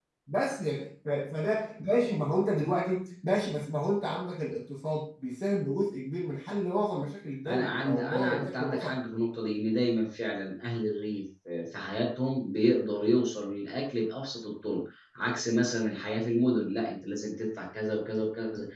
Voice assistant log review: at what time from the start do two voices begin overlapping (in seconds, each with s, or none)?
7.5 s